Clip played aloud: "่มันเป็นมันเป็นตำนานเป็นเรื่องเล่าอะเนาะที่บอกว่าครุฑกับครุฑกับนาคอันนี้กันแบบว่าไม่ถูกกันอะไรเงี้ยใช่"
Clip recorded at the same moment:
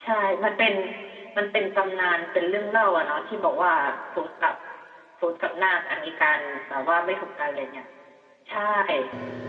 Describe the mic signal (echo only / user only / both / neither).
echo only